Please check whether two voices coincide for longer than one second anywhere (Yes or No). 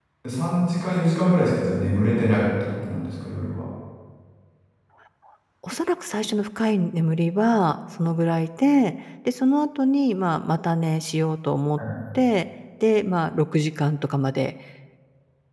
No